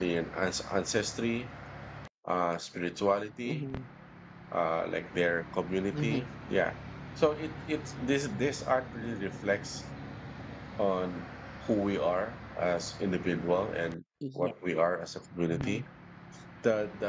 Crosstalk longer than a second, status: none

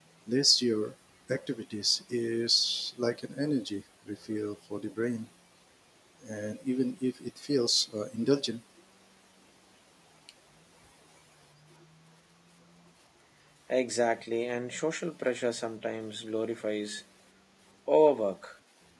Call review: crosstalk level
none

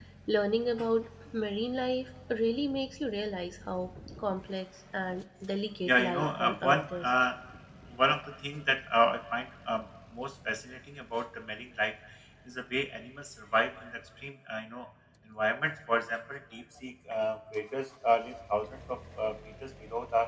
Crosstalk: present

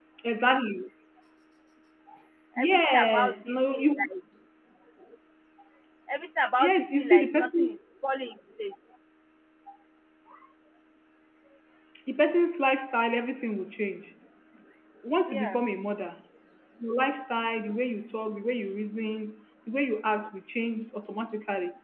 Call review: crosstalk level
present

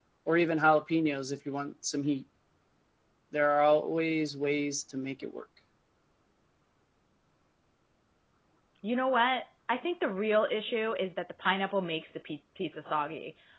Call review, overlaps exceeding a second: none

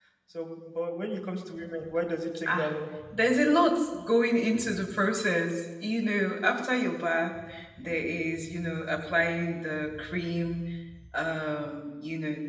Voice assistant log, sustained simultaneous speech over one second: none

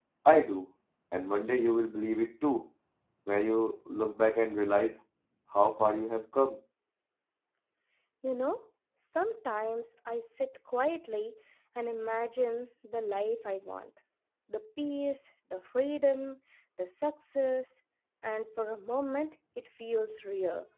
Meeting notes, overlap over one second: none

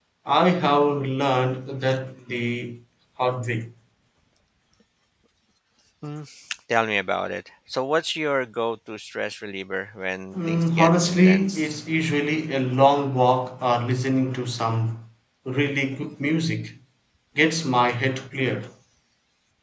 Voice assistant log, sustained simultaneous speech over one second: present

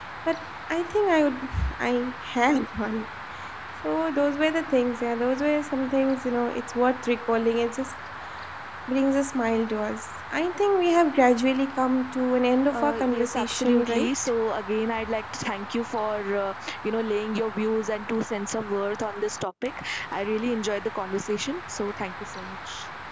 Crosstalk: present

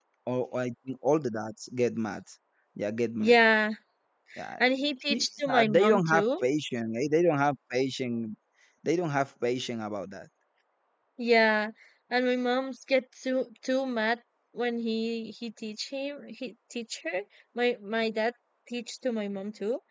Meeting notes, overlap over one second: present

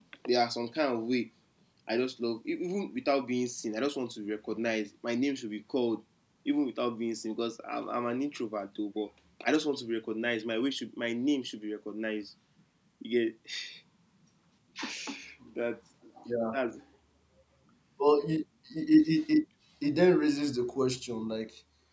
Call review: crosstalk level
none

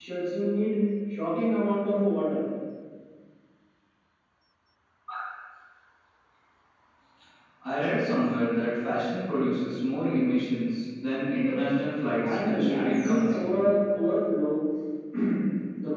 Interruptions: present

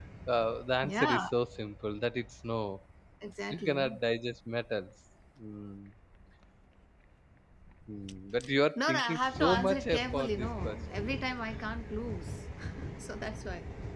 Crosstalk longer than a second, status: present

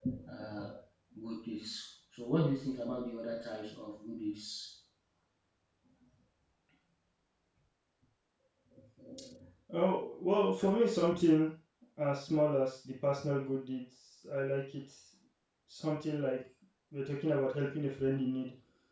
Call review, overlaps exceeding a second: none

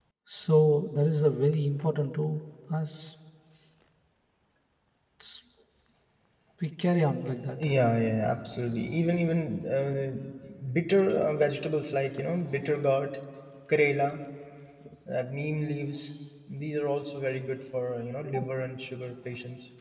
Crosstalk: none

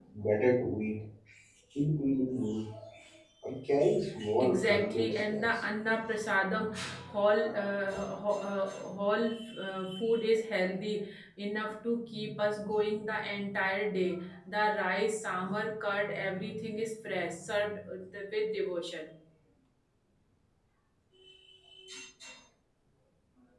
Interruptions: present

